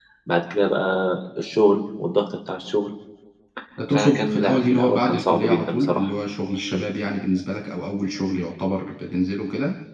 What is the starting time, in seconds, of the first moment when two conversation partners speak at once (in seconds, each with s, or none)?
3.9 s